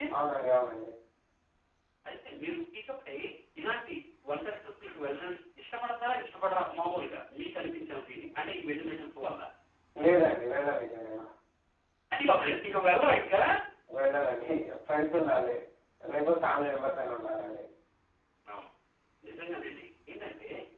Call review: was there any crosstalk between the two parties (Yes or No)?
No